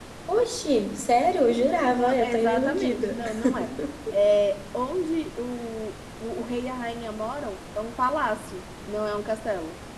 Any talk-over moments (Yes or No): Yes